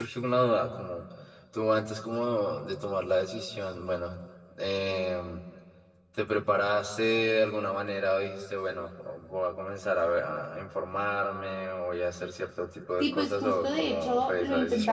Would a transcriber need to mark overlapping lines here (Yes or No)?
Yes